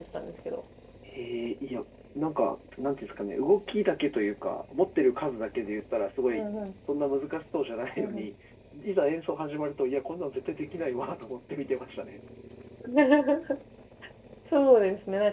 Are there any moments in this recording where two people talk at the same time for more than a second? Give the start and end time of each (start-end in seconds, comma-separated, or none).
none